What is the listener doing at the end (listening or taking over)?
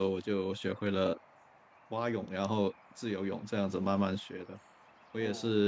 listening